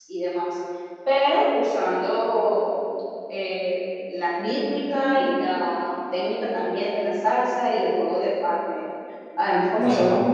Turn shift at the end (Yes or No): No